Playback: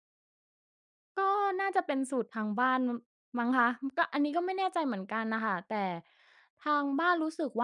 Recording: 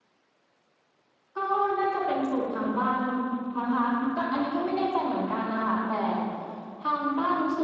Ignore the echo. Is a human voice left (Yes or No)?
No